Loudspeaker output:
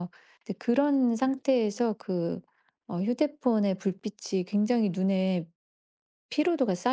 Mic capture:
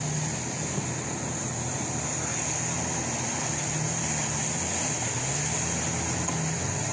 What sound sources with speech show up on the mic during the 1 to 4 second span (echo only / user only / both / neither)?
neither